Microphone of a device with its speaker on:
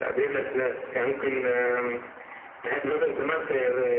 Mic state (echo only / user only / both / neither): echo only